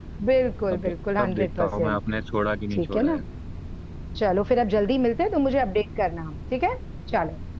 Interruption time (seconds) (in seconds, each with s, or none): 0.7 s